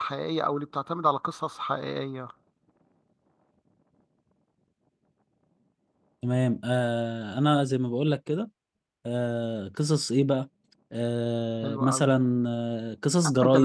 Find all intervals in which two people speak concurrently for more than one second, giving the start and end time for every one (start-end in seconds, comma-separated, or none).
none